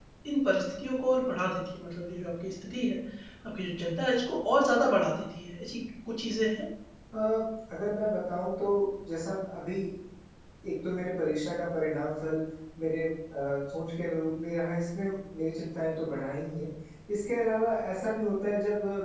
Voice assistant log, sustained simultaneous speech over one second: none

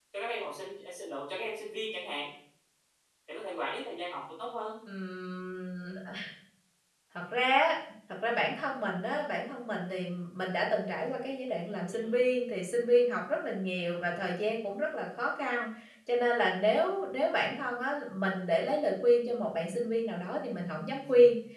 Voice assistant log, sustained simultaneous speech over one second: none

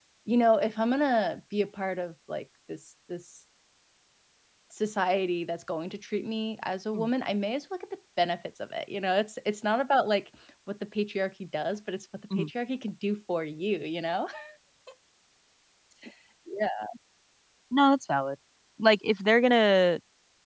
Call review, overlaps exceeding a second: none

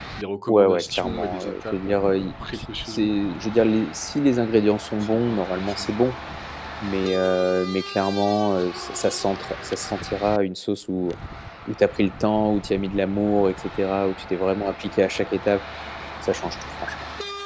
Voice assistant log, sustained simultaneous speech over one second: present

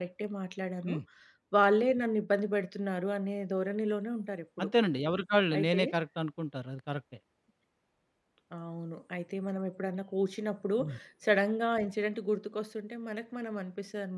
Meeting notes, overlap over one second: none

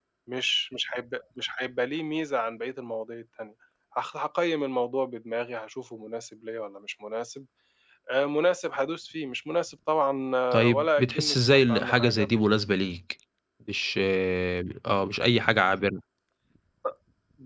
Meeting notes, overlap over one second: present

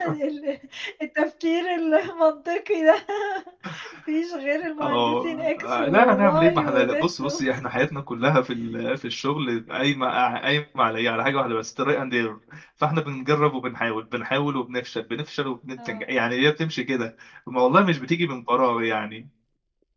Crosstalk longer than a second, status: present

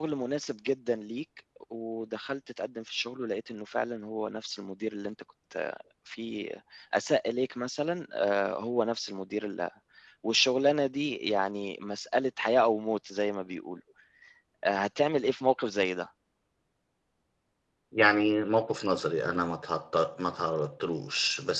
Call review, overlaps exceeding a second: none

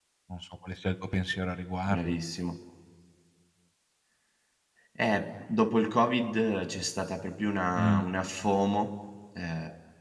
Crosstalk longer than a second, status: none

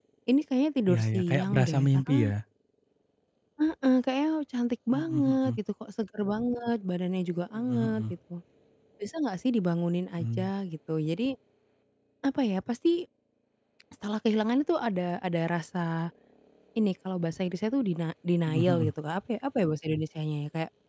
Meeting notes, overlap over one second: present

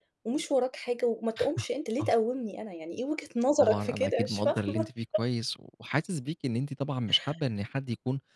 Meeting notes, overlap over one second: present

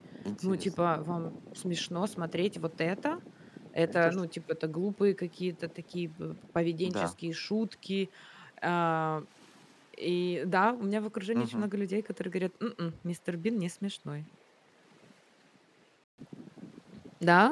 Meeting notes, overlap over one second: none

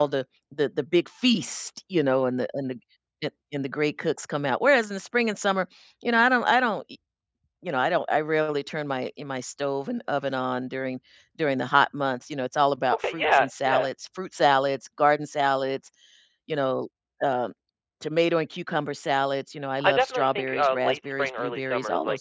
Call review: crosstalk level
present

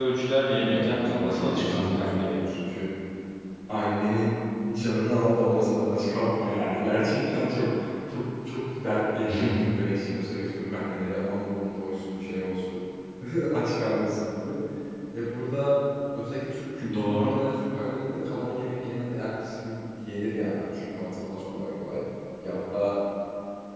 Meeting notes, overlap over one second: present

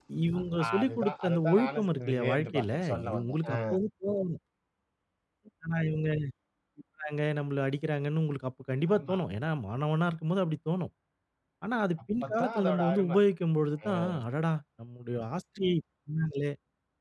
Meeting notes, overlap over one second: present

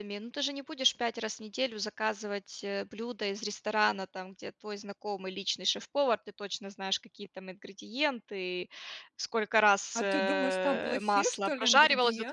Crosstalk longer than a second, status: present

